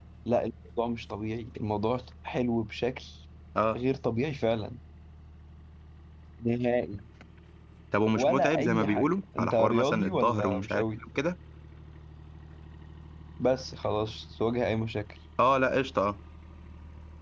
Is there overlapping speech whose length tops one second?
Yes, from 8.2 s

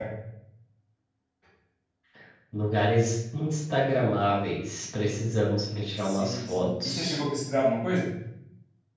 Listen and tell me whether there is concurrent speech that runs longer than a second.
Yes, from 6.0 s

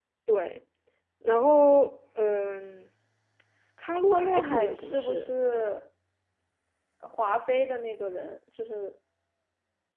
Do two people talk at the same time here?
Yes, from 4.1 s

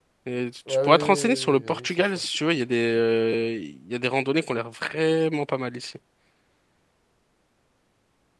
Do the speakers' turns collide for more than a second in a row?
Yes, from 0.9 s

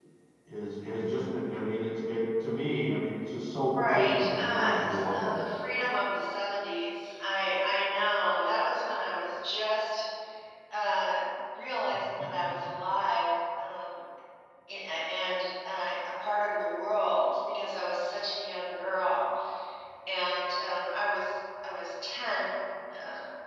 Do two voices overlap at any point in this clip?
Yes, from 3.7 s

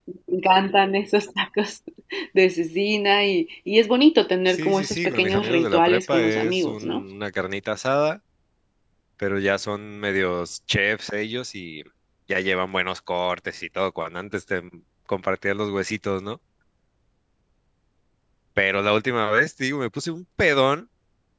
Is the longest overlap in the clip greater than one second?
Yes, from 4.5 s

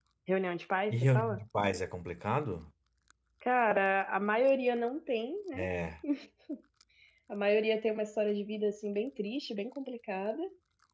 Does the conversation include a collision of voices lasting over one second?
No

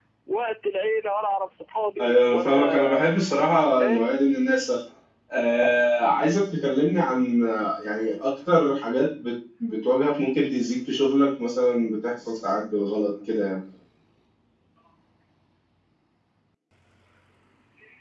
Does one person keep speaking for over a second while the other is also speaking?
Yes, from 2.0 s

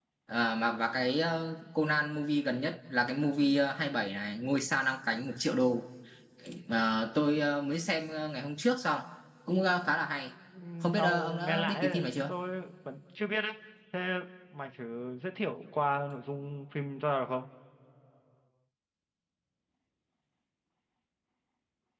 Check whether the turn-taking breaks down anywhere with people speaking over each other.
Yes, from 10.9 s

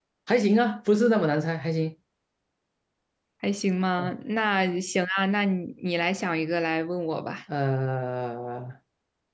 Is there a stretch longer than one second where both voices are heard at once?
No

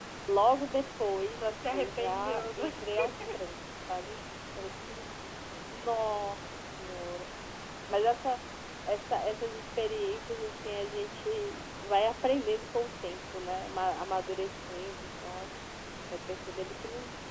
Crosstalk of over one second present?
Yes, from 1.4 s

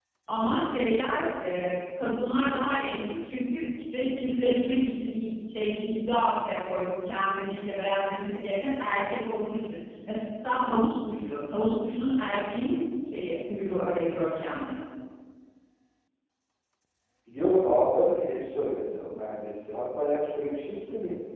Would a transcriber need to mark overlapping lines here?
No

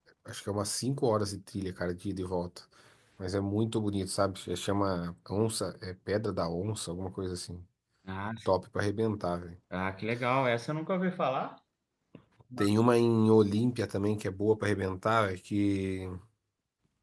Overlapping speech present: No

